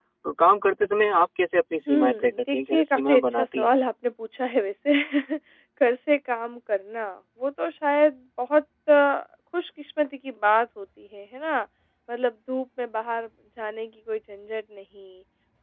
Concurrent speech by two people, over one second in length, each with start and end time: 1.9-3.7

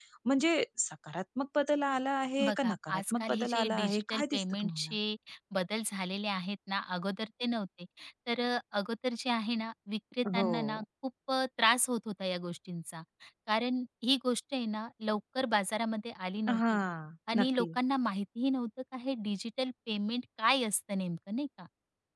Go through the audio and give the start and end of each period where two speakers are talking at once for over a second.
2.4-4.9

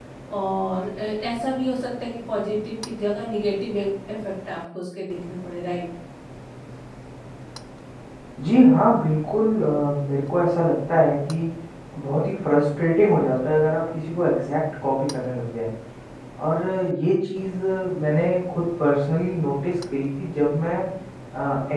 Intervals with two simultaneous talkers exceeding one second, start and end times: none

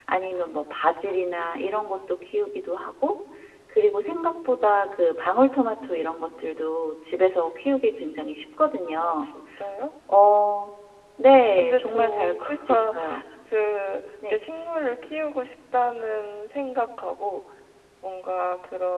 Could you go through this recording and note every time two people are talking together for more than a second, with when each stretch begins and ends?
11.6-12.9

